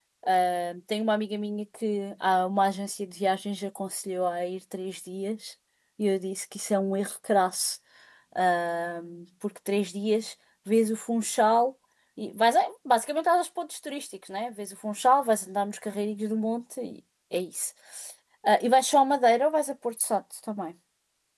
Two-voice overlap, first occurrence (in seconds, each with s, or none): none